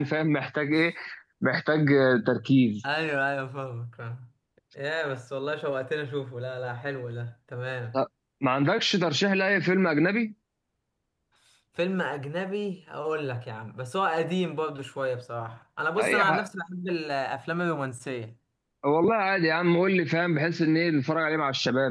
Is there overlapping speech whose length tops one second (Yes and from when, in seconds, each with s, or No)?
No